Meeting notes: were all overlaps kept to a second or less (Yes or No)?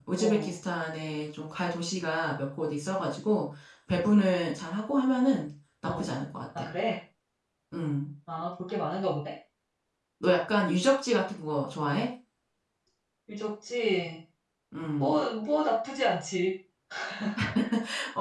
Yes